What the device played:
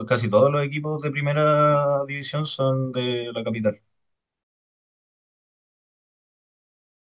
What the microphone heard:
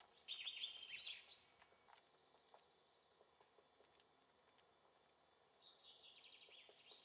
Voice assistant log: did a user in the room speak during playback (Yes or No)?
No